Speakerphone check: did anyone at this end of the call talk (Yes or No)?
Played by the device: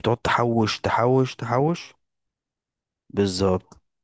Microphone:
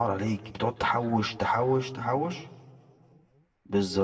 No